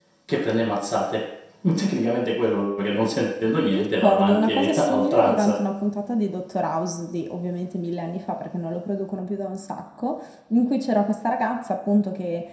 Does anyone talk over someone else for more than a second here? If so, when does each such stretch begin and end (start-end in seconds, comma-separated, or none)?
3.7-5.6